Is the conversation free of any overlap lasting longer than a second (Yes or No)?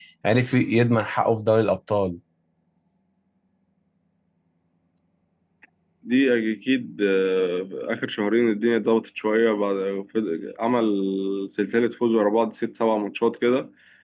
Yes